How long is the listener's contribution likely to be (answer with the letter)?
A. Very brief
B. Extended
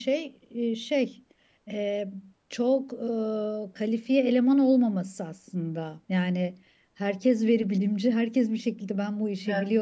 A